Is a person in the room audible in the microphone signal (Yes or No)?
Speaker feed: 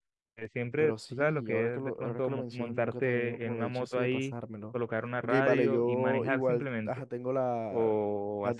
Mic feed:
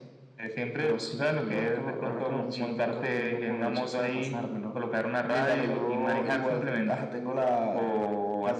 No